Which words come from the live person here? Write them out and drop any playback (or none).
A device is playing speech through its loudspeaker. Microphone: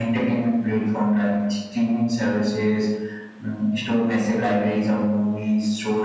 none